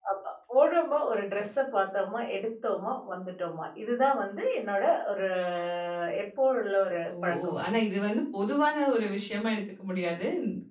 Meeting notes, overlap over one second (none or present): none